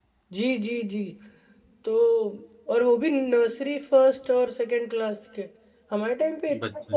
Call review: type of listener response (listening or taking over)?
listening